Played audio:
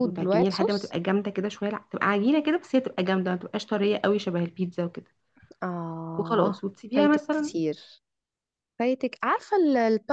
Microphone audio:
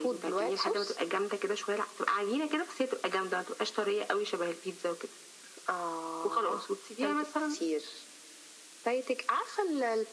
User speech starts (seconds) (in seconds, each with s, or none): none